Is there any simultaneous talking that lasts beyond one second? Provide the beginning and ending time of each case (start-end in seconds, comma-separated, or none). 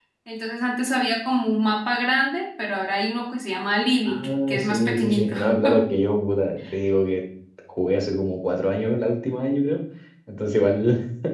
4.0-5.3